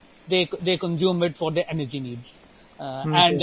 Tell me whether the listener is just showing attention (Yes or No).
Yes